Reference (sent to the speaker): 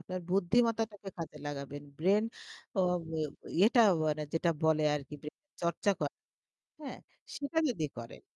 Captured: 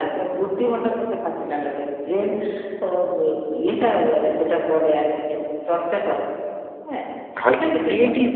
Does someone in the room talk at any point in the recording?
Yes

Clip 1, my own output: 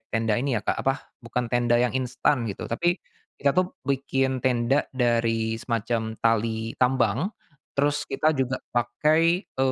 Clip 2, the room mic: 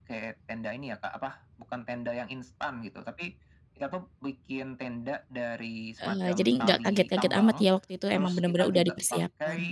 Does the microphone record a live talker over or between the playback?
Yes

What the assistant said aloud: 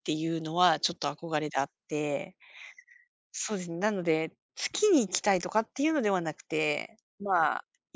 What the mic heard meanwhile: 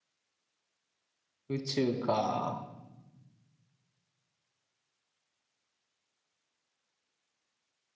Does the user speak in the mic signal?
Yes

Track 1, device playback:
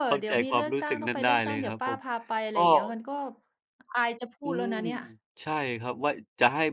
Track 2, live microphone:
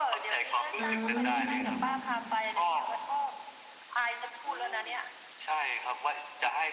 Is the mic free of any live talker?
No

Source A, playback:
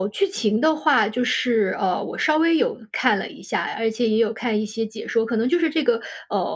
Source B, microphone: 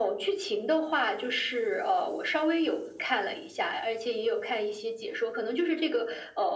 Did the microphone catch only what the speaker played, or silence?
Yes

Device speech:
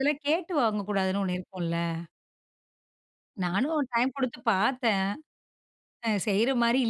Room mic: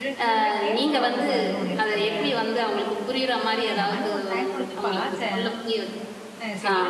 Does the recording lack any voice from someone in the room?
No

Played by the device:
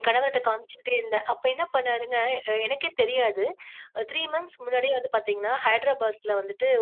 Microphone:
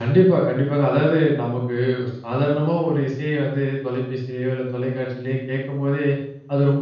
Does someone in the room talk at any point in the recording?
Yes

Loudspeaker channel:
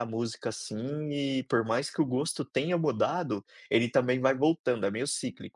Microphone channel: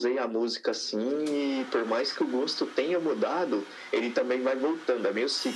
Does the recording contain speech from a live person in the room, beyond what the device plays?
No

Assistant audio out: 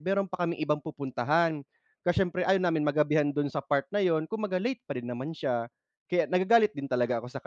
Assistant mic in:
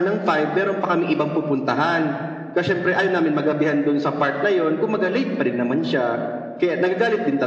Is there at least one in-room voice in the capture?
No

